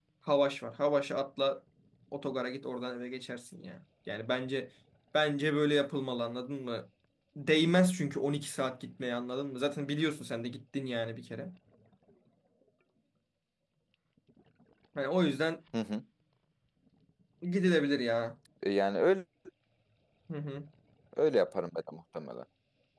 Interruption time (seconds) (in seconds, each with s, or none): none